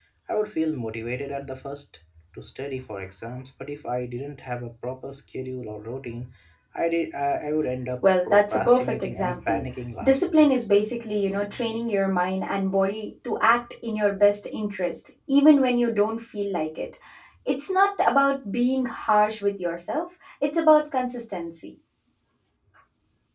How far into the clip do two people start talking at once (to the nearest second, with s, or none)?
8 s